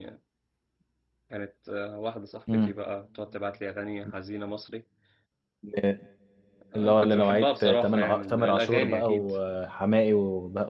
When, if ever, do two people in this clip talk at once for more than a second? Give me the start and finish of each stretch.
6.8-9.2

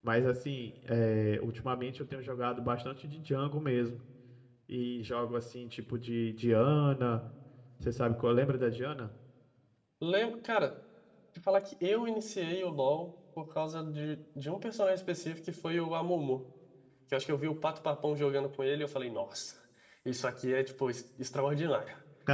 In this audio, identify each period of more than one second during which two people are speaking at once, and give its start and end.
none

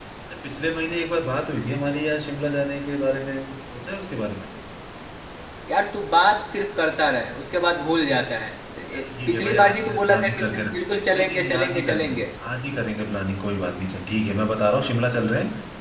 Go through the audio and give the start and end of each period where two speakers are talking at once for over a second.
8.9-12.2

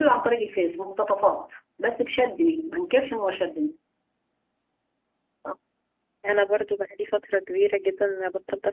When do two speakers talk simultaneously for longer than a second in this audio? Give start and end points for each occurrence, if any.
none

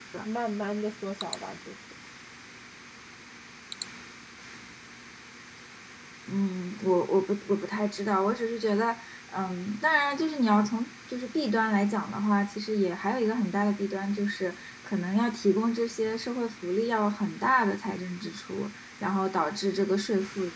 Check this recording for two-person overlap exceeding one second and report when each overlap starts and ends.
none

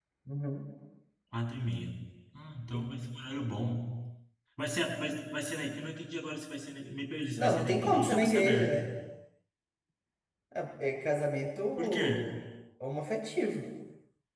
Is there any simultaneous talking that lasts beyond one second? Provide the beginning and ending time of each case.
7.4-8.8

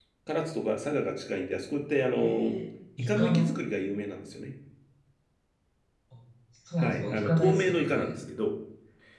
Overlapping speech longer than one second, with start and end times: 6.8-8.1

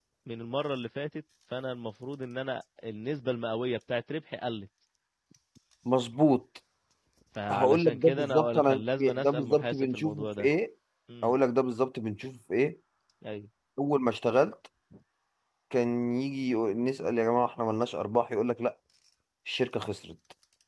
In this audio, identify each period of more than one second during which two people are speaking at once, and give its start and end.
7.5-10.5

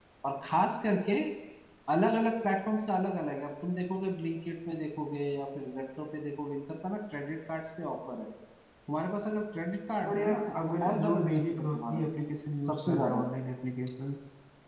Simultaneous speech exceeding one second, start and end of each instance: 10.1-12.0

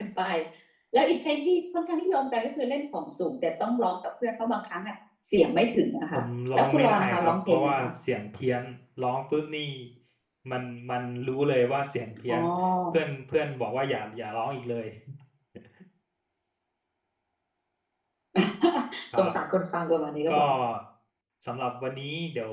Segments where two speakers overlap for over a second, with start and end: 6.5-7.9

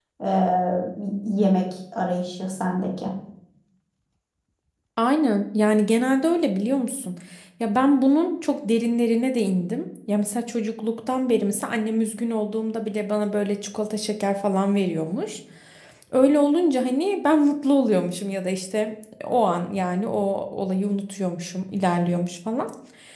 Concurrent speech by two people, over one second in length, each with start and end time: none

